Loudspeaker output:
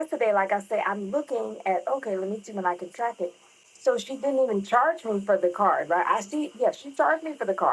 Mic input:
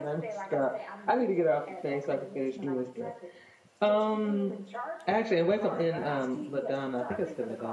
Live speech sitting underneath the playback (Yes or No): No